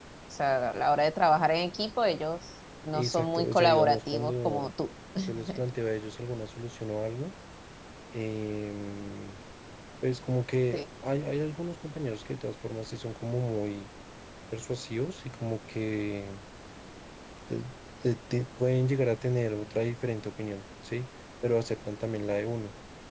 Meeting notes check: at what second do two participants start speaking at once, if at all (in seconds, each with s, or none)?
2.9 s